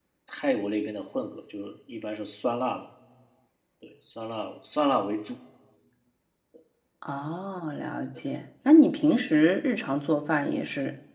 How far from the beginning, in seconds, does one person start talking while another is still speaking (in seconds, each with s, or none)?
none